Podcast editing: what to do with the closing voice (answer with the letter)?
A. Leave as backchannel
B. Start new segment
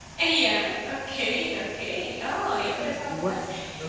B